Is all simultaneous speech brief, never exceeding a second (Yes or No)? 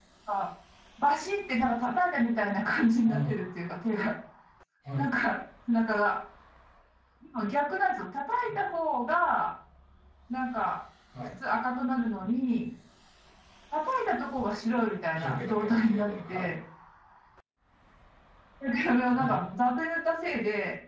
No